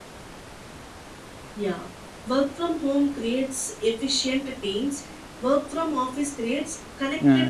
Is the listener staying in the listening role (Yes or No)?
No